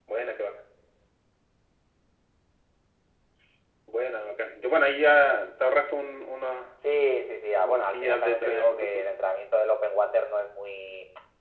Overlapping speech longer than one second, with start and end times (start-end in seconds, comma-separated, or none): 7.6-9.0